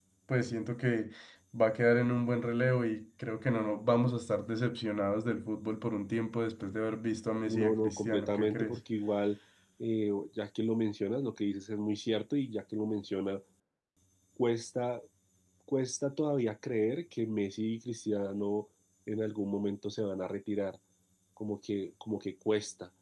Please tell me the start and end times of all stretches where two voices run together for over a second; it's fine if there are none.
7.5-8.8

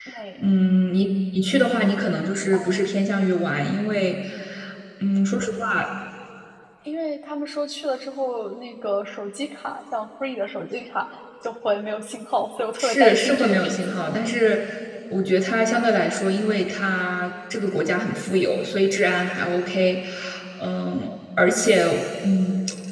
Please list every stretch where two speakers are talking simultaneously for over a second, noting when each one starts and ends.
12.8-14.0

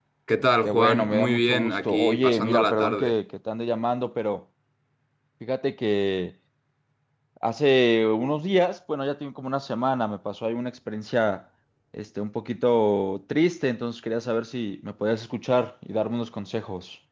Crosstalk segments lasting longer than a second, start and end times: 0.6-3.2

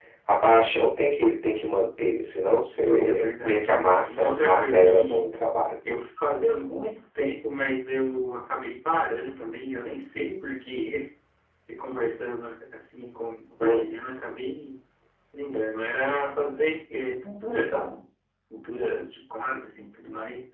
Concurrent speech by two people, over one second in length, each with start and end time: 3.0-5.3

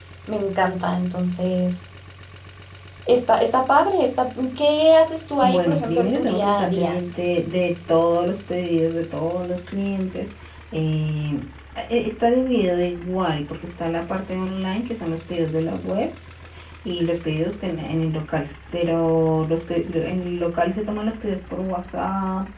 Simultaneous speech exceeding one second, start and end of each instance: 5.4-7.0

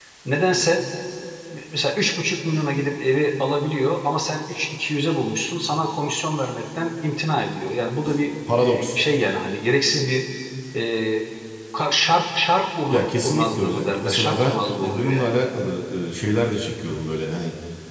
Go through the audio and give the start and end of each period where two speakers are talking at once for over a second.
12.9-15.3

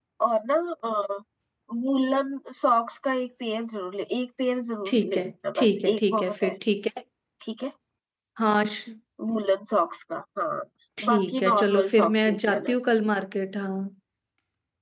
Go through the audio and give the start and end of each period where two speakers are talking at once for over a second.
4.9-6.5, 11.1-12.8

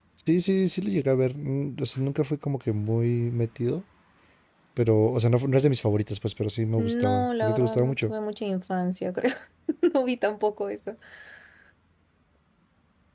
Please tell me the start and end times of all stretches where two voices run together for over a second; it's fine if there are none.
6.8-8.1

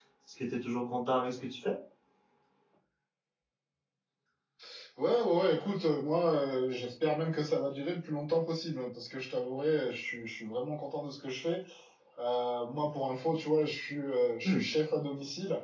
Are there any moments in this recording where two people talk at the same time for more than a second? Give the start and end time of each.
none

